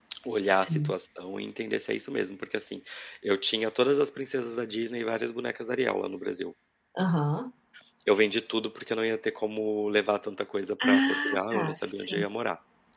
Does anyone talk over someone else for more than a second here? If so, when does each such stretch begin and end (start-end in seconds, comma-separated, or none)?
10.9-12.2